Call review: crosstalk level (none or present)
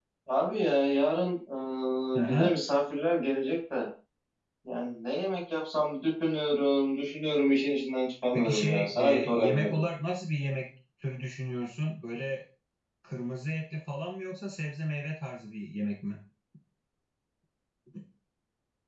present